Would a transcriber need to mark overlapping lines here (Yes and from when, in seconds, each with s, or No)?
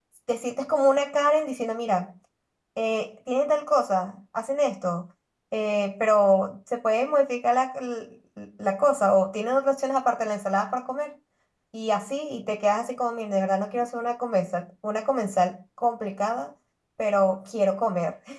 No